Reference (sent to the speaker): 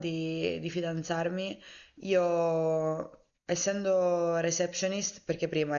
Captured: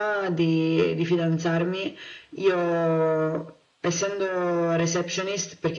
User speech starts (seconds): none

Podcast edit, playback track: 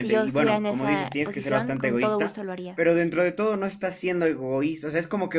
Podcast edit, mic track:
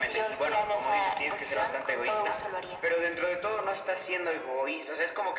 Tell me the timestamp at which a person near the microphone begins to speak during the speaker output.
none

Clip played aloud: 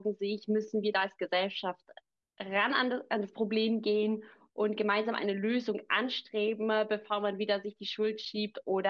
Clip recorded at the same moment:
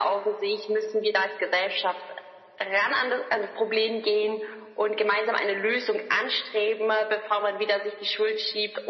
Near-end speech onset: none

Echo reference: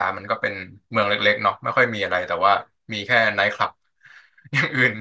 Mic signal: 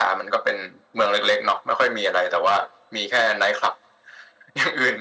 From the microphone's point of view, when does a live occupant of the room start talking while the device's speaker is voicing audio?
none

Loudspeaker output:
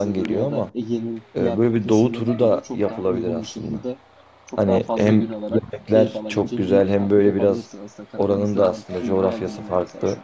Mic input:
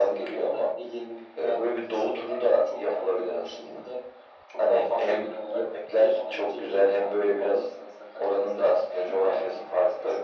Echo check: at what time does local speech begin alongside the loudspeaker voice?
none

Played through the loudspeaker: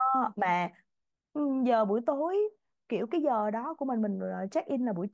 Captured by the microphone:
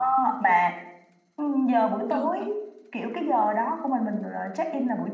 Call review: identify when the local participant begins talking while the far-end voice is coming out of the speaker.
2 s

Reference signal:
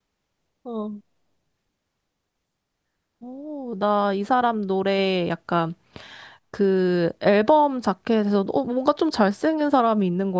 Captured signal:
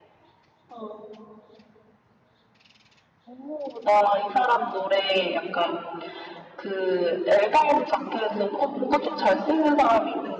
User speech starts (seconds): none

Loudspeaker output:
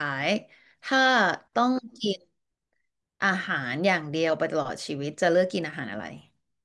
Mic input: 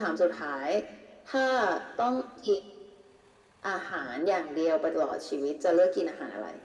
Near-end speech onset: none

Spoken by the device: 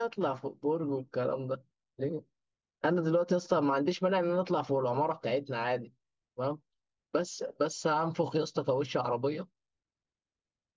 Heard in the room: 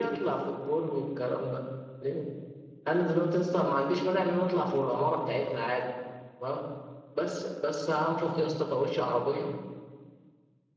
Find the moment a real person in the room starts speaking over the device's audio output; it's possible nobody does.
none

